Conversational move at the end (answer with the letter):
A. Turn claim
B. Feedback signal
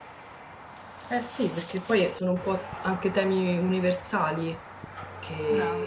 B